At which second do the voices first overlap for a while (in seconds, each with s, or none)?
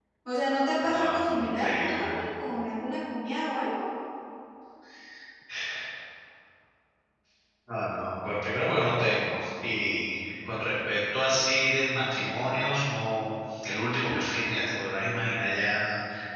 0.8 s